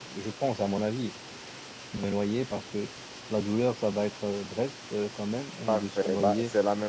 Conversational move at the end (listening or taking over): taking over